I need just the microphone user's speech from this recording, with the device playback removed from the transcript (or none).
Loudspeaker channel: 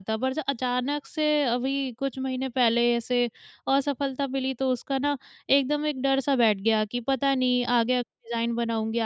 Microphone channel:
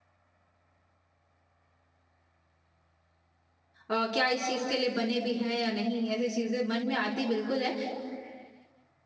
अ, क्या इस चीज़ के लिए बने भी हैं या नहीं ऐसी चीज़ें मन में आती बिल्कुल हैं।